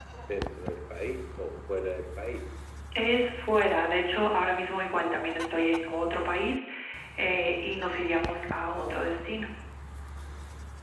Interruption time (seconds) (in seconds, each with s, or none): none